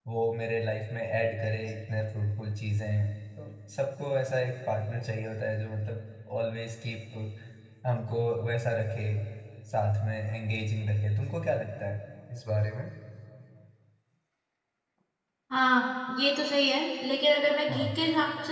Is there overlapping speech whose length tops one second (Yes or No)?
No